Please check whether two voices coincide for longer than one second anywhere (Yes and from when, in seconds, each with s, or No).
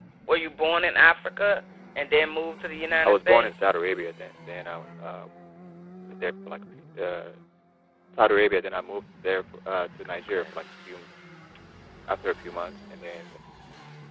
No